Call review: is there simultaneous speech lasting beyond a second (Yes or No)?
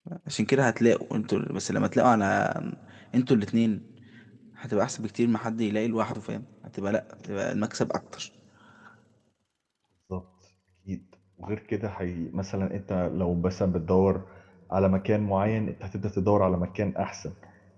No